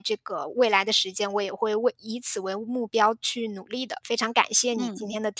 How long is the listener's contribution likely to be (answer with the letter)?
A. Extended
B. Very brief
A